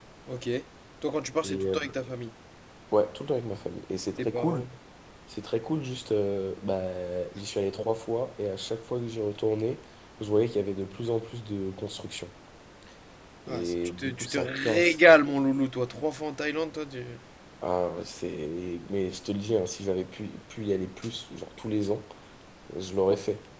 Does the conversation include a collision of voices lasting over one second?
Yes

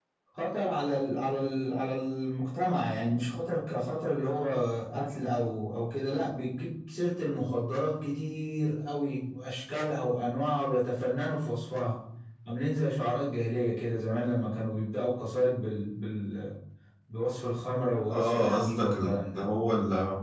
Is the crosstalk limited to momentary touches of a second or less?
No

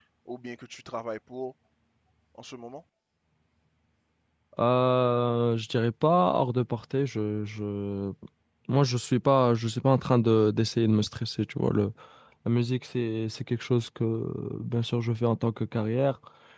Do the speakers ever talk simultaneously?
No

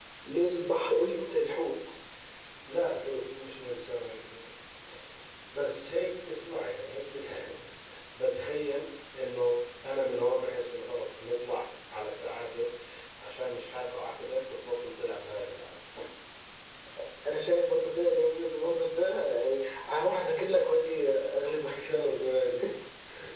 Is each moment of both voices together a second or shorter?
Yes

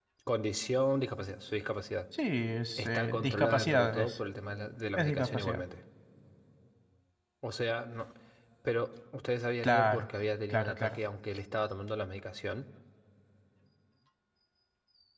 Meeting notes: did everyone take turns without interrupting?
No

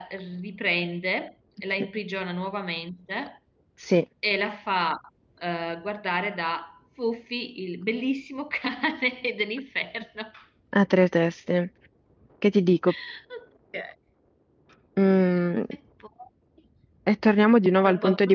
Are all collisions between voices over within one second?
Yes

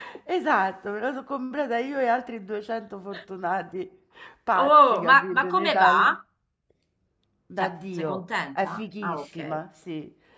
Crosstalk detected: Yes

